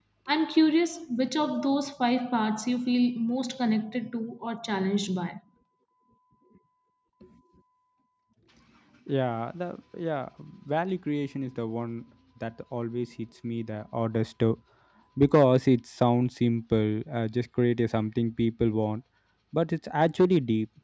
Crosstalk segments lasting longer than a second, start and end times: none

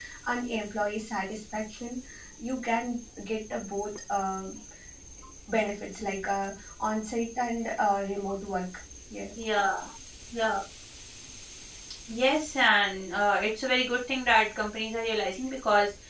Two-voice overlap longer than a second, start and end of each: none

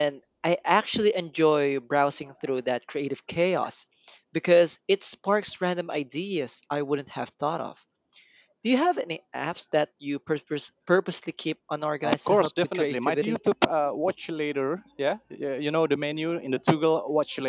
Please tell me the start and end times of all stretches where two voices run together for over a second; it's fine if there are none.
12.0-13.4

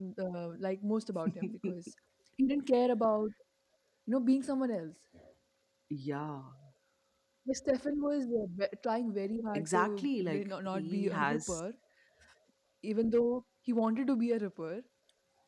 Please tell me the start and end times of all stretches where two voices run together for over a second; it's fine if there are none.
9.6-11.5

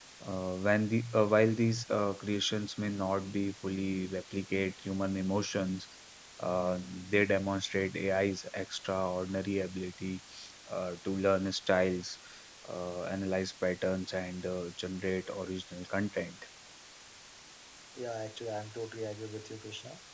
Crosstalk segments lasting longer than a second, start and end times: none

